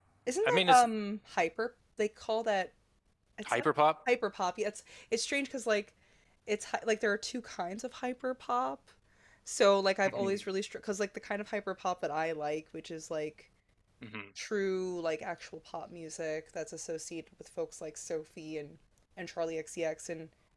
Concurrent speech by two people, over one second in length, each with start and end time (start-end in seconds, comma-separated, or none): none